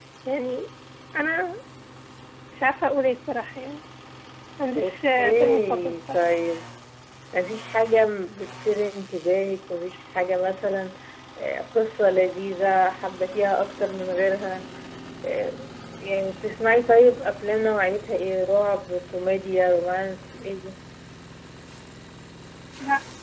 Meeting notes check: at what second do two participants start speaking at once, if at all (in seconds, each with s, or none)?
4.8 s